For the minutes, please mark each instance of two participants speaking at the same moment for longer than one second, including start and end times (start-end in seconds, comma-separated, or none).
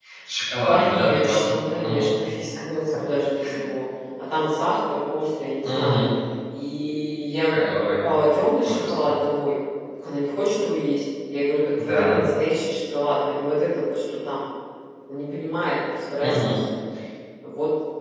0.7-2.1